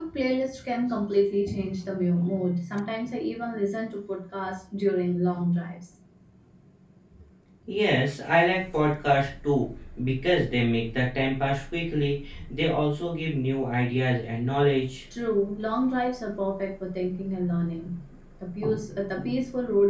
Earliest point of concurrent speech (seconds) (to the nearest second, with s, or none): none